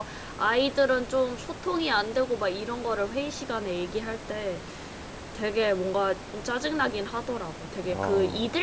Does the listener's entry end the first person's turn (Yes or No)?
No